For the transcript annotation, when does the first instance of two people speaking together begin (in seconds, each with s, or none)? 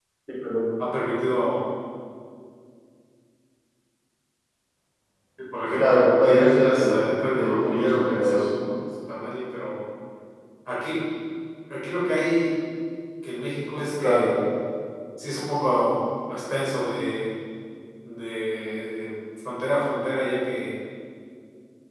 5.8 s